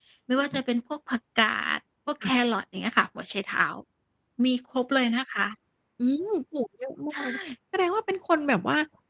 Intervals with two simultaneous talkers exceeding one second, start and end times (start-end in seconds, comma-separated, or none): none